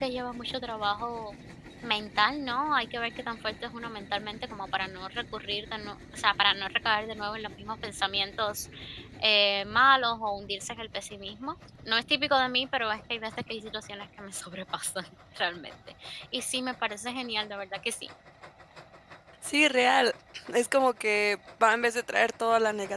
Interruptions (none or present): none